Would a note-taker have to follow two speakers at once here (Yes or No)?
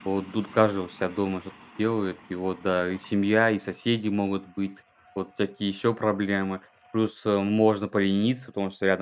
No